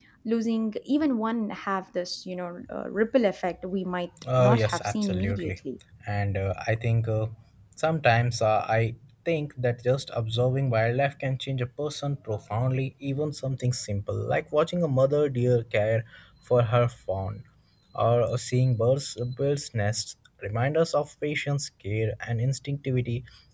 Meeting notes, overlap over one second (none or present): present